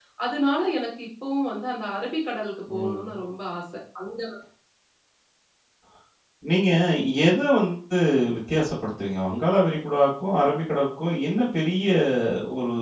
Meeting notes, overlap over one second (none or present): none